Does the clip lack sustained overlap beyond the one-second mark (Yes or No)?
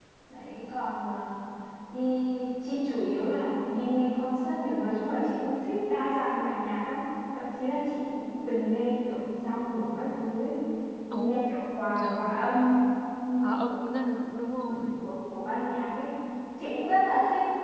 Yes